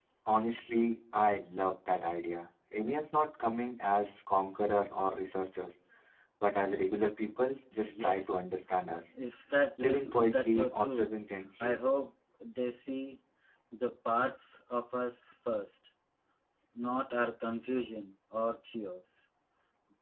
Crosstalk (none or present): present